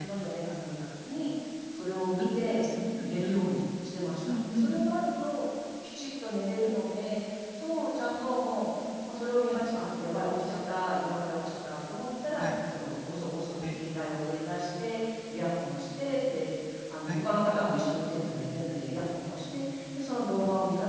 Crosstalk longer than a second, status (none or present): none